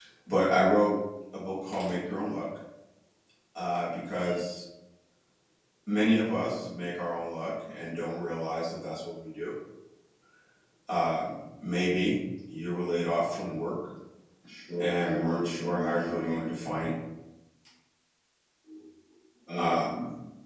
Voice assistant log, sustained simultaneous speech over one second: present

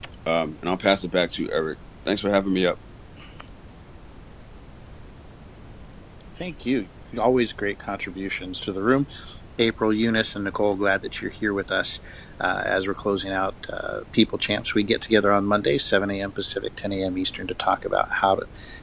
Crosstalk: none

